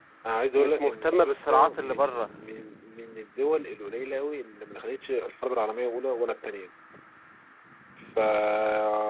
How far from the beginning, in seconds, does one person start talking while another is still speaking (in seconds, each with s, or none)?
0.5 s